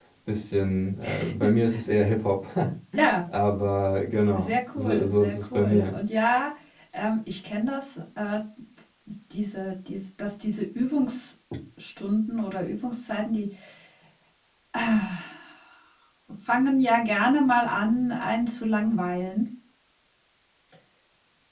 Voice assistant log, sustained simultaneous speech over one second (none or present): present